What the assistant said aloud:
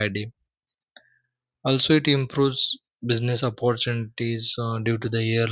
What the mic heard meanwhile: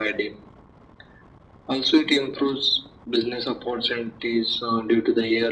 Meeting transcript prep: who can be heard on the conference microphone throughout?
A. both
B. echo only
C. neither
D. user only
B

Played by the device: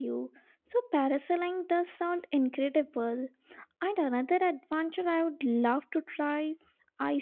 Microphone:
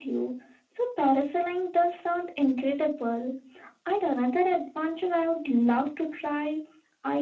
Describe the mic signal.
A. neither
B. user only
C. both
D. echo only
D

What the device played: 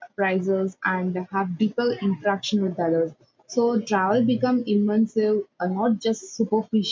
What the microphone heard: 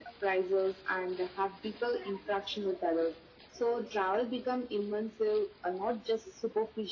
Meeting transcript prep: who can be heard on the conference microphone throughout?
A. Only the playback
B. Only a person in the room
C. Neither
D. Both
A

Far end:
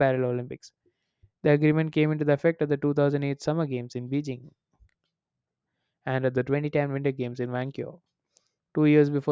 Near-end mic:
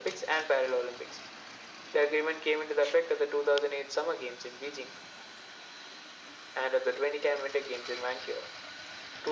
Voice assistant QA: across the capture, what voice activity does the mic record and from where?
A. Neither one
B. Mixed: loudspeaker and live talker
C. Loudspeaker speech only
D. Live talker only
C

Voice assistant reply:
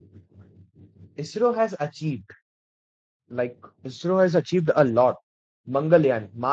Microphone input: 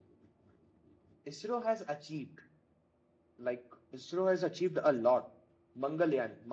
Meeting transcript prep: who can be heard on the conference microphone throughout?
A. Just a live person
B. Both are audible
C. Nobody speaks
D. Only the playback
D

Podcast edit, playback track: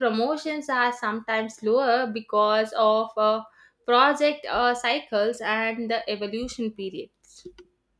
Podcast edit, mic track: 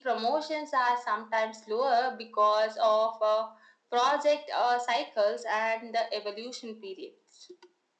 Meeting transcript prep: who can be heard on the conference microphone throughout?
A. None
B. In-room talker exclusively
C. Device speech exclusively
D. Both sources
C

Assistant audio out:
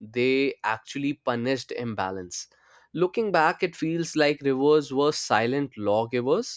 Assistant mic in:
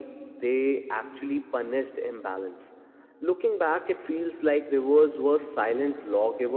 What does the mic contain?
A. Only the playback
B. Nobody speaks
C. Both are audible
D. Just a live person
A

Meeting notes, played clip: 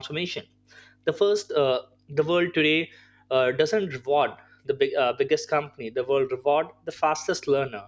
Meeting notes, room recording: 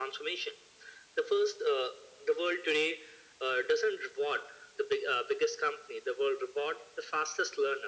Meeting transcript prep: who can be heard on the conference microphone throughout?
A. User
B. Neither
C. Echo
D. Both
C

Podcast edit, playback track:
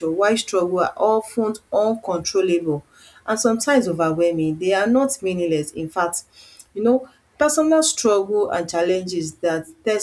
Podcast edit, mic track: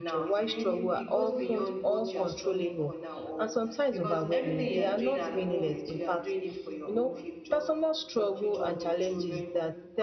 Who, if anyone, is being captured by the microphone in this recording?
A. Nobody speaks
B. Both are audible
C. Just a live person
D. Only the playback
B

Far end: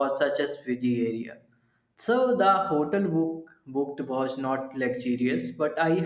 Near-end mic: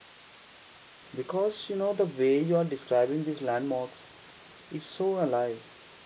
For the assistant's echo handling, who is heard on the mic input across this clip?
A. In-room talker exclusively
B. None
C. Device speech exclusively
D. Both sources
A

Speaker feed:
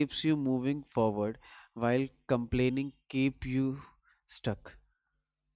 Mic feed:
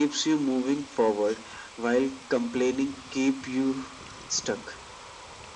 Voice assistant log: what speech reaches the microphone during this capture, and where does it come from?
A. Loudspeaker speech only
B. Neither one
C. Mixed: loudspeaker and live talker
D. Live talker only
A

